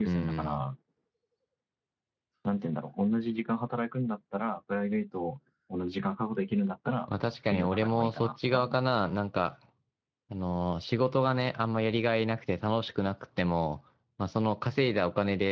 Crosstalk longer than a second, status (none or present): present